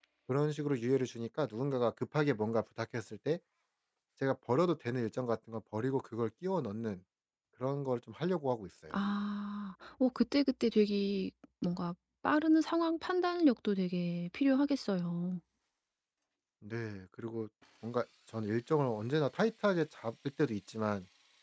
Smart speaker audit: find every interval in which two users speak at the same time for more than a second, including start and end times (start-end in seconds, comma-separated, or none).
none